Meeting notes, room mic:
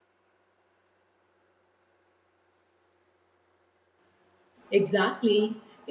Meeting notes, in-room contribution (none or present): present